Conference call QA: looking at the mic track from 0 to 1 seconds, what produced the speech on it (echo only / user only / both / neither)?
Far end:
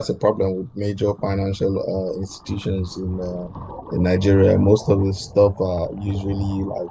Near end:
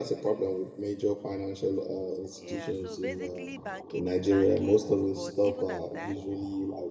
echo only